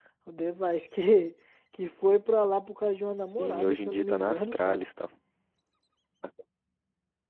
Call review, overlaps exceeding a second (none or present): present